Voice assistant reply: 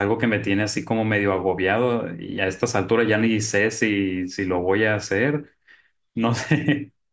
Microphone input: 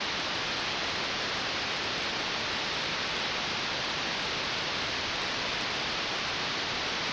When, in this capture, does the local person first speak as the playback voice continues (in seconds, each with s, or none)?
none